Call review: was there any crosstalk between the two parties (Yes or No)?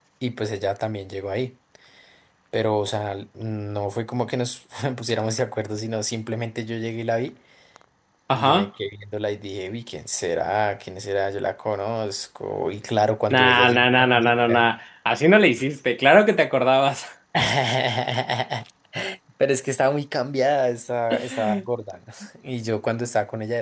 Yes